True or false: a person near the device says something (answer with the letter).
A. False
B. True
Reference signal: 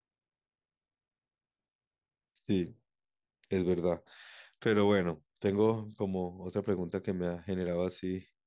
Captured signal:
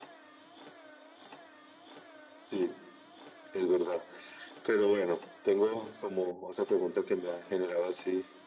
A